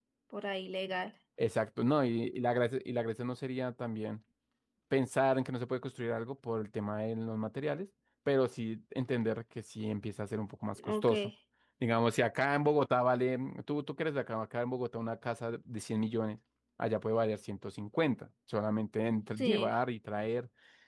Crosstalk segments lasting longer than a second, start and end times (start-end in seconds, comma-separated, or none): none